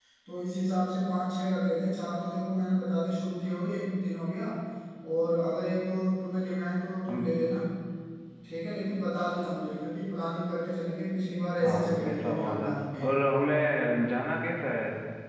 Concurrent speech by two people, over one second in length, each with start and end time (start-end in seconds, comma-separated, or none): 11.6-13.0